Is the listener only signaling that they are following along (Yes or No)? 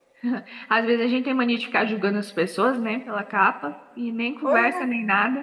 Yes